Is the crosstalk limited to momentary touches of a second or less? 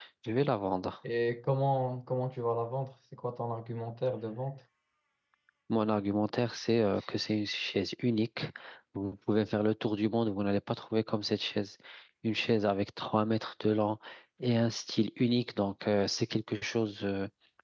Yes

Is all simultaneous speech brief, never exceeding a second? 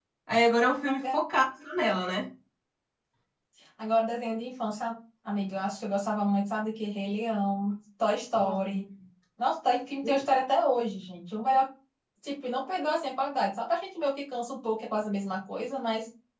Yes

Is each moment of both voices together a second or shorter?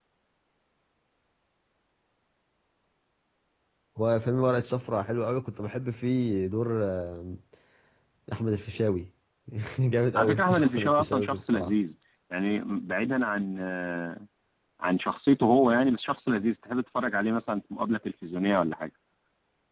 No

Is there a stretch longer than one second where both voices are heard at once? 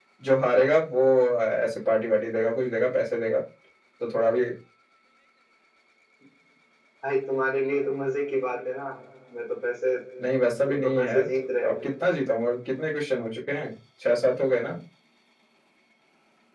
Yes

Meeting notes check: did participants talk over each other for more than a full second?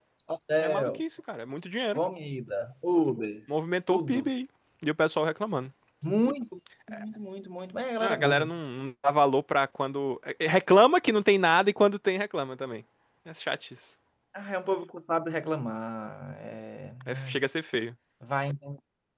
No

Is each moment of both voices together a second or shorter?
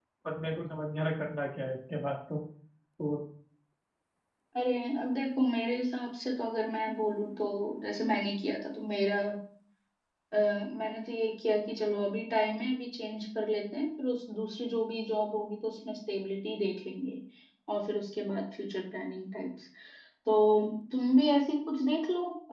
Yes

